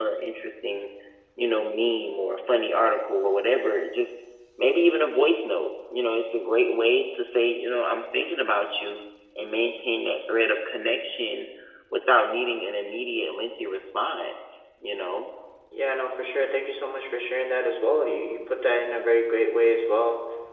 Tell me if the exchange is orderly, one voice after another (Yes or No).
Yes